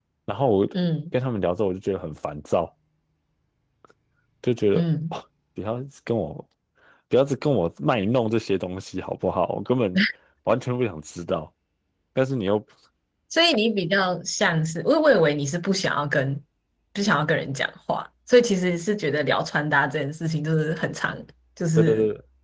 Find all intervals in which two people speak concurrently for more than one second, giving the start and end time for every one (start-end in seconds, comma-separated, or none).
none